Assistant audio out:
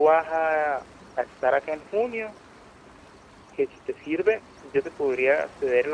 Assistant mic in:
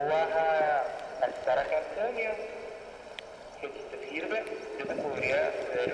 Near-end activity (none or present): none